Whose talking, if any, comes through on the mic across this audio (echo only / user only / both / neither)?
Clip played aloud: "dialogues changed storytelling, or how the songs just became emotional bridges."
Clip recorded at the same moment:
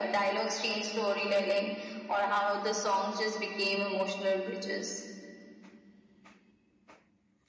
echo only